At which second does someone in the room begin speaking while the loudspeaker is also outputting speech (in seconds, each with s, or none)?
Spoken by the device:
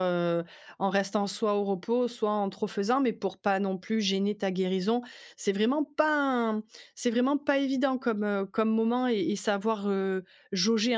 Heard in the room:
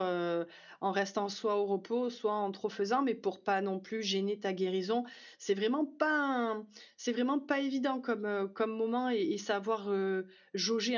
none